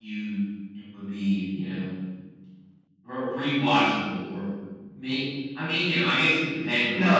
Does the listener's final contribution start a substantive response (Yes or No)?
Yes